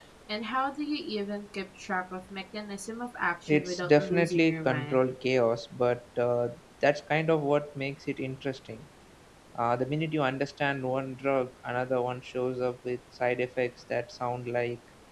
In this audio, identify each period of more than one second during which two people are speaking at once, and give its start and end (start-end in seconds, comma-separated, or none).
3.5-5.0